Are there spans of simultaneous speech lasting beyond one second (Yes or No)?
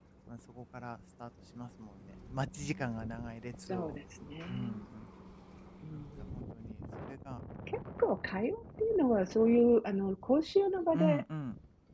No